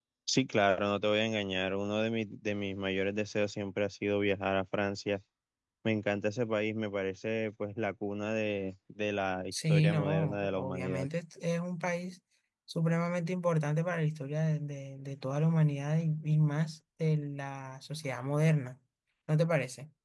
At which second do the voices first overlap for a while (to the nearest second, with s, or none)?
10 s